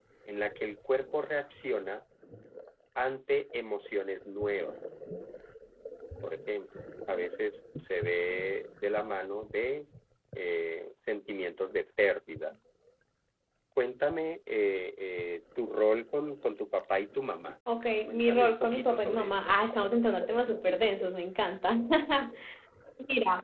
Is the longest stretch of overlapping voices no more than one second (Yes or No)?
No